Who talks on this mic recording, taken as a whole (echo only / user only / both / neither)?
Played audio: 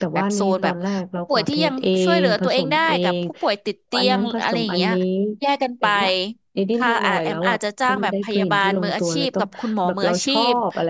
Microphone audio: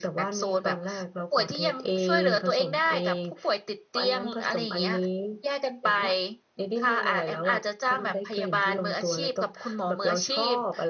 echo only